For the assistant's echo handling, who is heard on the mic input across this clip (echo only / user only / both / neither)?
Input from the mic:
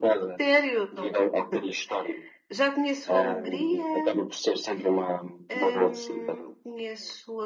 both